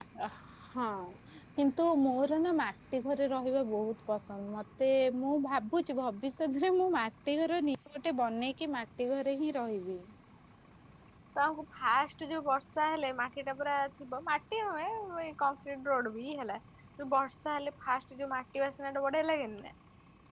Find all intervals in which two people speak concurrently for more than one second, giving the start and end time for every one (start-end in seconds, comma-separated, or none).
none